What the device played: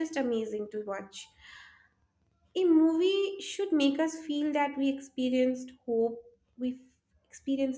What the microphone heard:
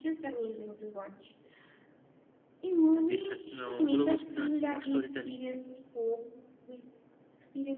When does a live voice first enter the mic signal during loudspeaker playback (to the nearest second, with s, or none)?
3 s